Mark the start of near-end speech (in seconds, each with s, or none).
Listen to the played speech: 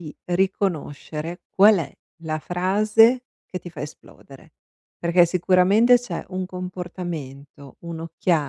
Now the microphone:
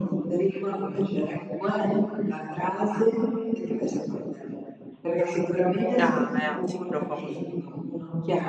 6.0 s